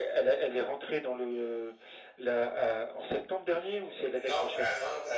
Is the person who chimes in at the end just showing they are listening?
No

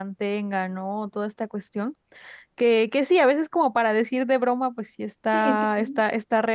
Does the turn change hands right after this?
No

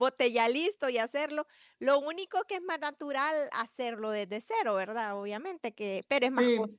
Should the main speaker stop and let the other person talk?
No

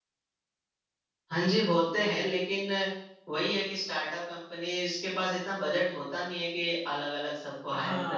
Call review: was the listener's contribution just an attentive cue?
No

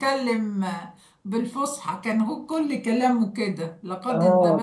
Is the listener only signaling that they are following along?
No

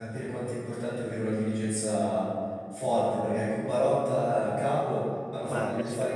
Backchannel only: Yes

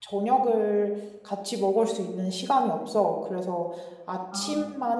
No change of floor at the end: Yes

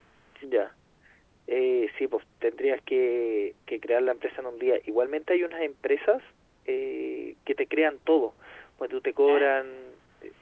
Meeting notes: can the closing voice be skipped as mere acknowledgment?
Yes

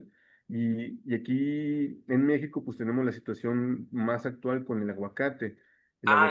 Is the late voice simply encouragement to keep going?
No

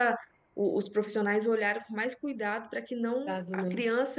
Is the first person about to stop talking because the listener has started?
No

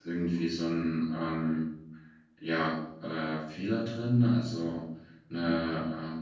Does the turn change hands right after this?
No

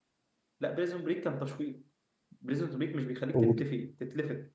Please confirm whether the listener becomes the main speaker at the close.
No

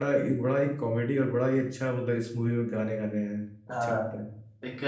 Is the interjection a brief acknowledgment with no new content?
No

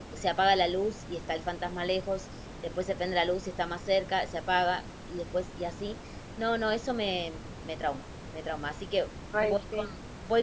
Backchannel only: Yes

